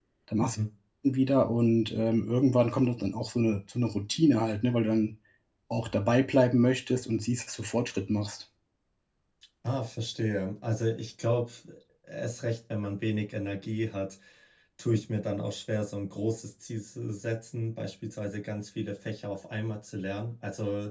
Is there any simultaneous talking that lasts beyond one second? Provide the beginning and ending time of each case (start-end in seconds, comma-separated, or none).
none